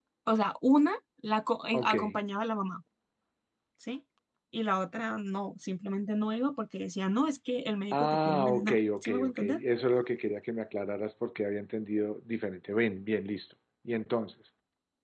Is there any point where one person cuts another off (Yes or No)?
Yes